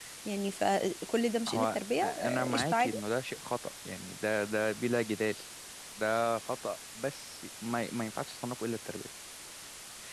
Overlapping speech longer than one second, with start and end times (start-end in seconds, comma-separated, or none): 1.5-3.0